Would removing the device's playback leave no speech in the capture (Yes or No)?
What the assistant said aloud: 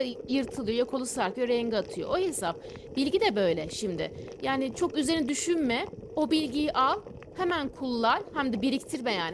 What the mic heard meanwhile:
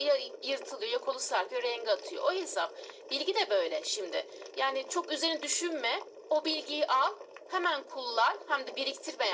Yes